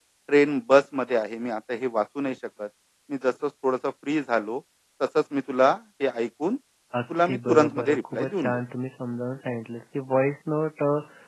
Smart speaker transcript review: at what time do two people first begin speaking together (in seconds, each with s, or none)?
7.1 s